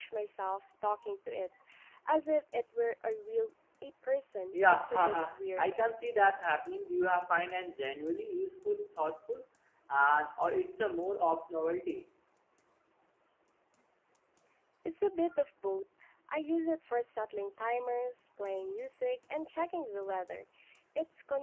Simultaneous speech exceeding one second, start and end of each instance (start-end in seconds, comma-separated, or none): 4.5-5.7